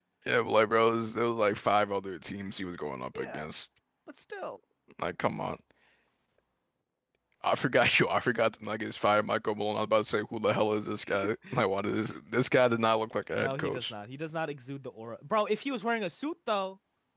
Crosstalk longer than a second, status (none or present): none